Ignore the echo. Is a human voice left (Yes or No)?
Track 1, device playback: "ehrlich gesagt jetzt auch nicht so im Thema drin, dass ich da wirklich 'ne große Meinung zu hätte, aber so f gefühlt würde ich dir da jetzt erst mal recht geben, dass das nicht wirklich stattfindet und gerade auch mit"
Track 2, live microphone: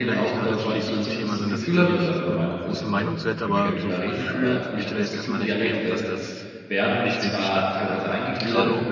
Yes